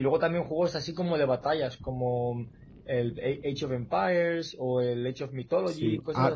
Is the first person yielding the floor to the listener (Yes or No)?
Yes